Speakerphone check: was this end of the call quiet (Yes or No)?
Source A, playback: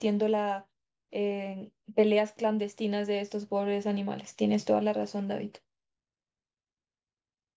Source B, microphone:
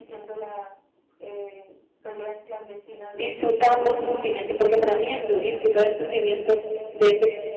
No